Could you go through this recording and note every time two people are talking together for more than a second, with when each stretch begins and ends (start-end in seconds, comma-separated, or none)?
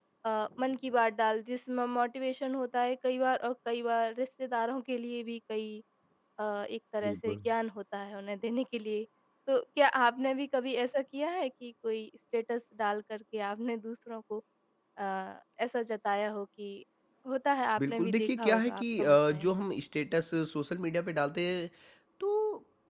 17.8-19.5